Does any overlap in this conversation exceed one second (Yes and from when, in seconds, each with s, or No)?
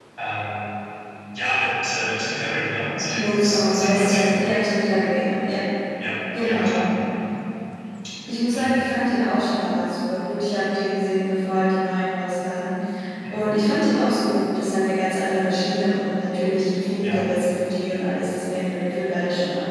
Yes, from 3.1 s